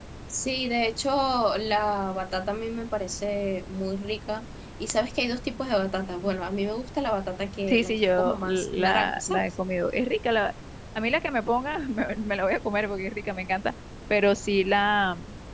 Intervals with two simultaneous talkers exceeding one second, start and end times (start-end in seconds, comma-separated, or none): 7.7-9.5